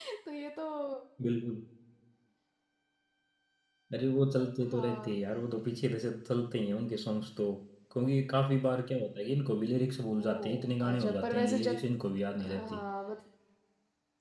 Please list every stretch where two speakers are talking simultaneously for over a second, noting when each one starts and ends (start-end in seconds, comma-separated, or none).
10.2-11.8